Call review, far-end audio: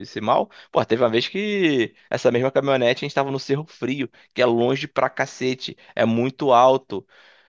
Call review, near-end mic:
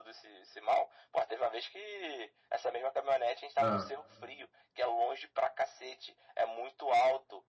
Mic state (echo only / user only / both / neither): both